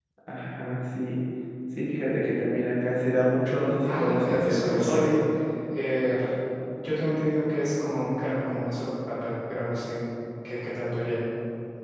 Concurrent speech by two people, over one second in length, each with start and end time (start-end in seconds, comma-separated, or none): 3.8-5.0